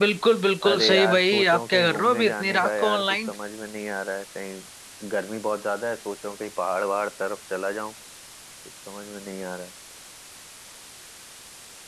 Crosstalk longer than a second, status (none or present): present